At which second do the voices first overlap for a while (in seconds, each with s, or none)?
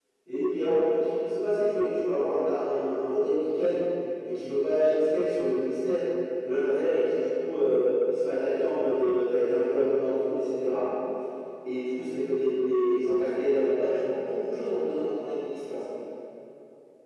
none